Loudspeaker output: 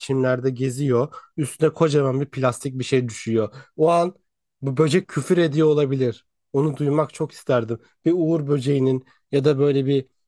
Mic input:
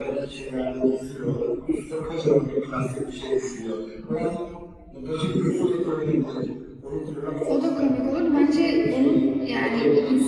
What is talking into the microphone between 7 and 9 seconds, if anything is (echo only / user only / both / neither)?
both